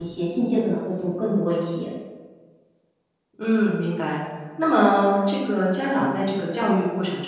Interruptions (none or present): none